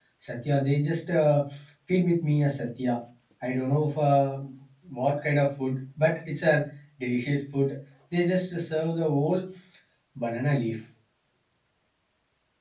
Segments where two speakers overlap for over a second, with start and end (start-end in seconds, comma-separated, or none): none